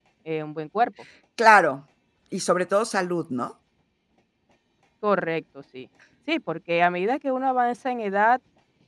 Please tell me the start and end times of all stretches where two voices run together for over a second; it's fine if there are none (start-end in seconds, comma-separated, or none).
none